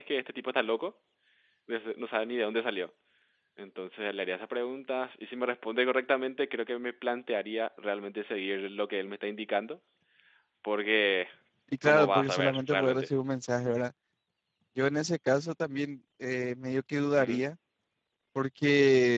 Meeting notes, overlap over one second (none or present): present